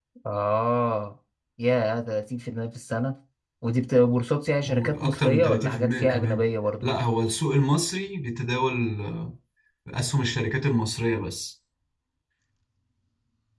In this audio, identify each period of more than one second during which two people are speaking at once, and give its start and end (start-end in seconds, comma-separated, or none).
4.7-6.5